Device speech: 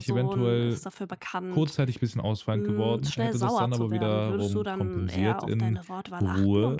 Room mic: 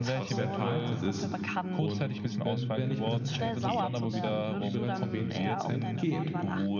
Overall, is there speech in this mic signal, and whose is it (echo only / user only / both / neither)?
both